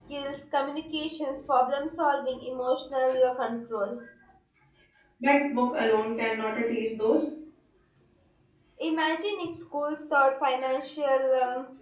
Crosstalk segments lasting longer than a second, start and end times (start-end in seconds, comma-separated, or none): none